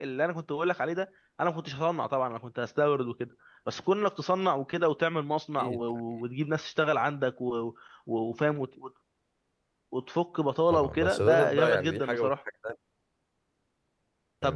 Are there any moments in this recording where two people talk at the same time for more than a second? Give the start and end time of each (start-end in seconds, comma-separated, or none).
10.7-12.3